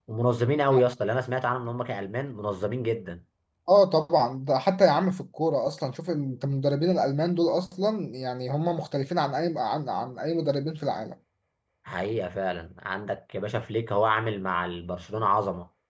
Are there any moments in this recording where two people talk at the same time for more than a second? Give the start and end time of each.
none

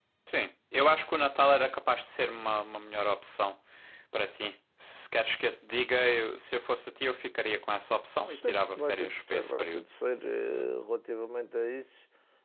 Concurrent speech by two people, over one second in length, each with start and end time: 8.2-9.8

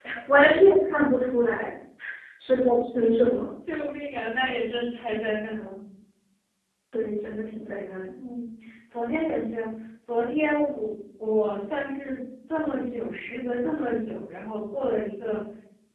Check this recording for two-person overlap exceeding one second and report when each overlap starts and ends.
none

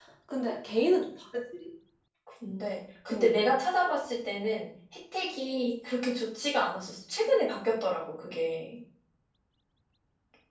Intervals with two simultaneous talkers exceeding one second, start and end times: none

